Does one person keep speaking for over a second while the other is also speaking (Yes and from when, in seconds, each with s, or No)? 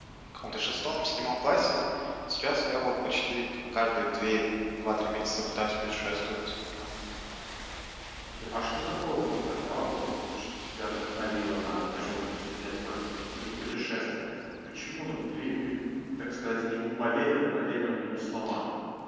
No